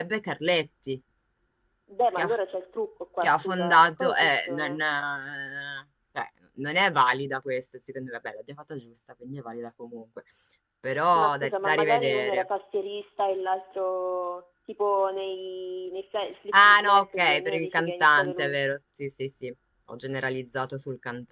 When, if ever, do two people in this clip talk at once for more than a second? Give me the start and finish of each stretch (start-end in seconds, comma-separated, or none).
3.2-4.8, 11.2-12.4, 16.5-18.6